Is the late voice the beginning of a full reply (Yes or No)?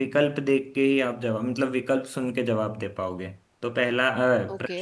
No